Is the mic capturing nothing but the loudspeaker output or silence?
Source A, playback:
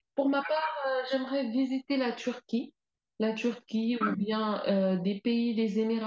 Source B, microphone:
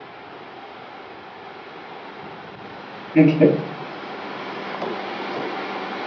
No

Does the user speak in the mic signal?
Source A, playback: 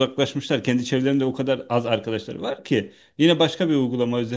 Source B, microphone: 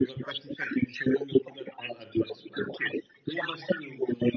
No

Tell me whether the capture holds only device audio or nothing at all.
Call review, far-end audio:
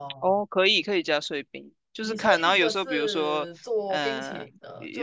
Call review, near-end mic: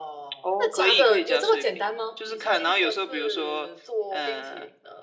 No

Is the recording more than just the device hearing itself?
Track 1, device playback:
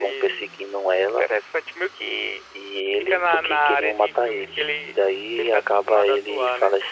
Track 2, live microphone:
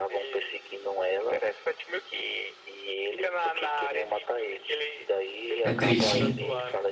Yes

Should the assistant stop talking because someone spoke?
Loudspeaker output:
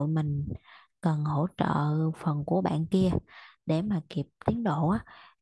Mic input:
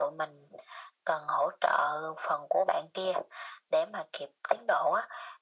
No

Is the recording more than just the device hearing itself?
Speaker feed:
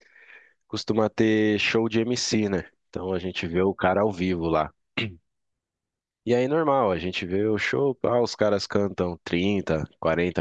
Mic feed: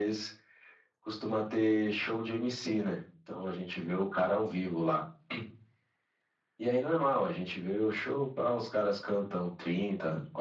No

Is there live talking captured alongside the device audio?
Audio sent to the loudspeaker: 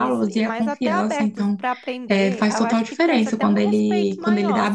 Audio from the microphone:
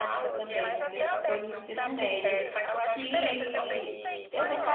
Yes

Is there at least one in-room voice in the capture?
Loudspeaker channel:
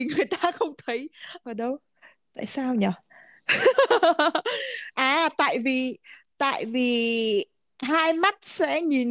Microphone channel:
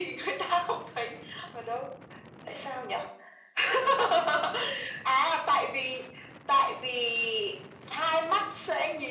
No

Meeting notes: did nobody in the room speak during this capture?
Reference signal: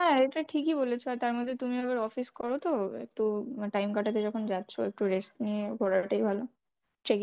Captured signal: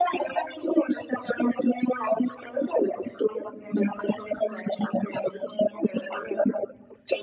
Yes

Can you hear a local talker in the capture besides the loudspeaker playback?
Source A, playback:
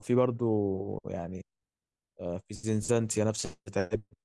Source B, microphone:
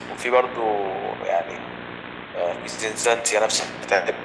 No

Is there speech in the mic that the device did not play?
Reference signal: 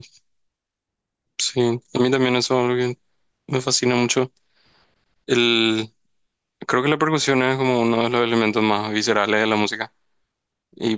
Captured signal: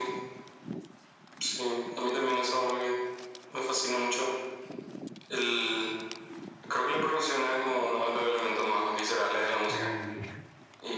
Yes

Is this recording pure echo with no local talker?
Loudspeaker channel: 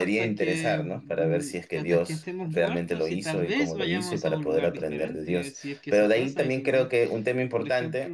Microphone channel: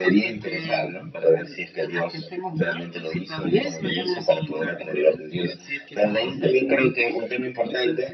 Yes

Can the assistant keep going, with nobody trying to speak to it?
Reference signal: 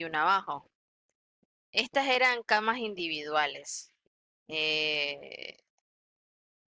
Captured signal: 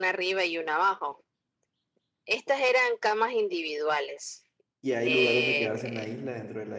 No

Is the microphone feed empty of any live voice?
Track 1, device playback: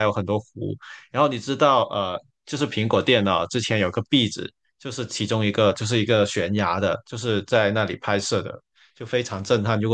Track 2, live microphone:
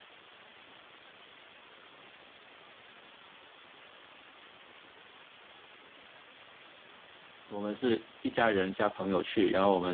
No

